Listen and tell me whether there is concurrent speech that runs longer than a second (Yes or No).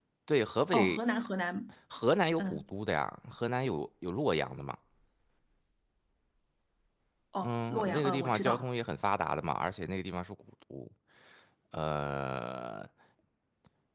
Yes